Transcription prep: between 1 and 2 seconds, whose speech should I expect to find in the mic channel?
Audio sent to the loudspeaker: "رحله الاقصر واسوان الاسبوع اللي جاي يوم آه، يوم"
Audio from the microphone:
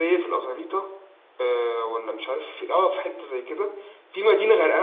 user only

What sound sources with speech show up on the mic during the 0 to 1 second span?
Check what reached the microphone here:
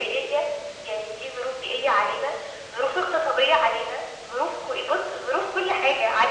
echo only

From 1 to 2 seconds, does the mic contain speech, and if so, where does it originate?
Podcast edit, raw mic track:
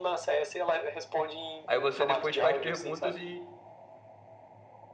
both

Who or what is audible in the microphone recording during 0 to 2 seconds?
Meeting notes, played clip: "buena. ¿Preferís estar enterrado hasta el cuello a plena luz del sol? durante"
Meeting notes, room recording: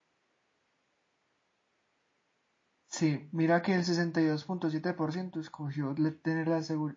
neither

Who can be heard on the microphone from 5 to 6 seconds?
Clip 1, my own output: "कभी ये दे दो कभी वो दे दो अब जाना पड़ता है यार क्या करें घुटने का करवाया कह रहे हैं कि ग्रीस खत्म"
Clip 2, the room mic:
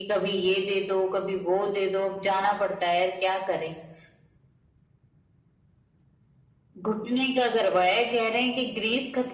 neither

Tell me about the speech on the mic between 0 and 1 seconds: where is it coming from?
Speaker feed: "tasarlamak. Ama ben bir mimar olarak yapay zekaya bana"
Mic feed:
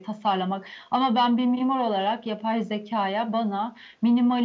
echo only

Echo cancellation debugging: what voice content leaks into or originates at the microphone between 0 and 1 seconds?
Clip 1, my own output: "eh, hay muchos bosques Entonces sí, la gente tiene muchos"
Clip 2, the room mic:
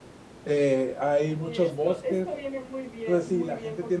echo only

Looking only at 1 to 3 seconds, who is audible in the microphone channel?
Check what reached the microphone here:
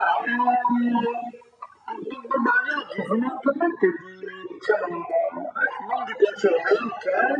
echo only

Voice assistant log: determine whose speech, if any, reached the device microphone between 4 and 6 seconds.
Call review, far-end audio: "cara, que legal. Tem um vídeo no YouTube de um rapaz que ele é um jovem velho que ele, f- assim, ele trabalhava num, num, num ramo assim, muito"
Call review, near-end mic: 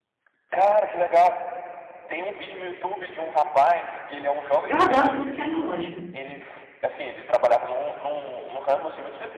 both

